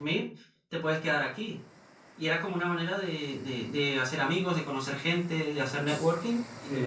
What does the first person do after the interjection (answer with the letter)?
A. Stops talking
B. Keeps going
B